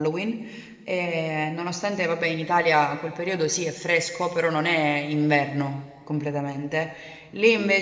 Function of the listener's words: listening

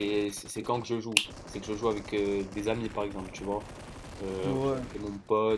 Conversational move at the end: listening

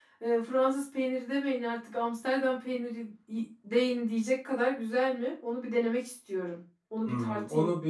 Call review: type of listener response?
taking over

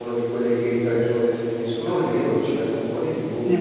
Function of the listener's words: taking over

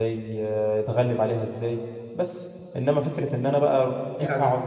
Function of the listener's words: listening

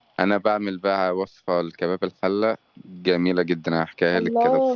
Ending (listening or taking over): taking over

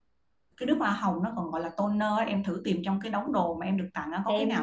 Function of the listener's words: taking over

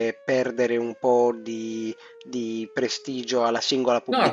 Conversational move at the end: taking over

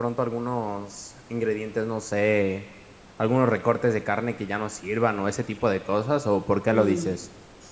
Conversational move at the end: taking over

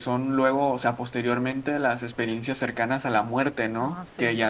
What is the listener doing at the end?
listening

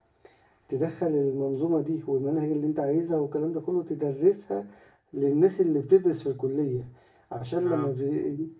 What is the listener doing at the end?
listening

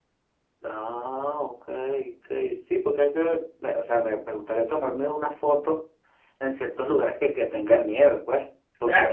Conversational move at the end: taking over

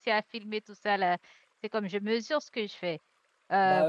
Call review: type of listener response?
listening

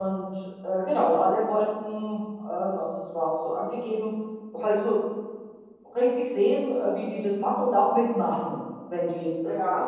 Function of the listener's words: listening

